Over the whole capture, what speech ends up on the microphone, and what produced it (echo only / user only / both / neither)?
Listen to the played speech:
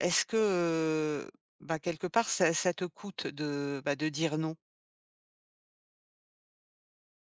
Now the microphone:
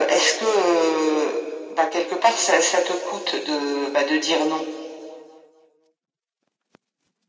echo only